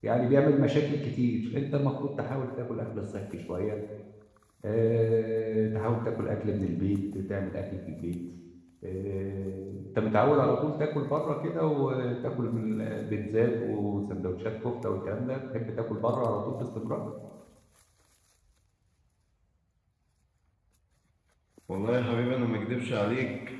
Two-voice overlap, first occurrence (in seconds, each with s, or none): none